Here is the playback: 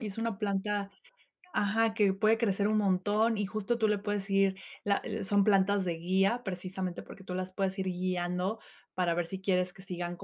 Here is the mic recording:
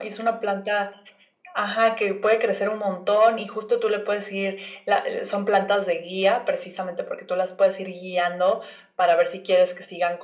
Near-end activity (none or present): none